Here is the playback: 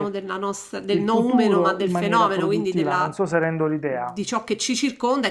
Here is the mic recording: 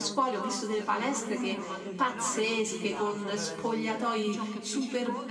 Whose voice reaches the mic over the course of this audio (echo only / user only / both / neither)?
both